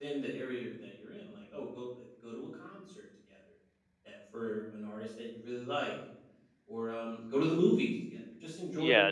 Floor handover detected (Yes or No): Yes